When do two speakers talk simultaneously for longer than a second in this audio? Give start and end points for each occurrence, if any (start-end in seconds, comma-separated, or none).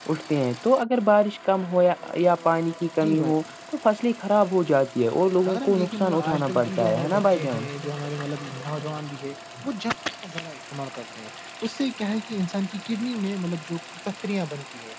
5.5-7.6